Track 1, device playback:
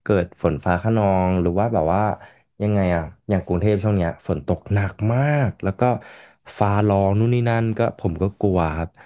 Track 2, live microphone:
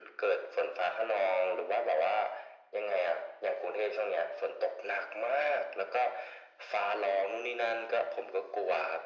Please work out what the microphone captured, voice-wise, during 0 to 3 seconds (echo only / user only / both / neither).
echo only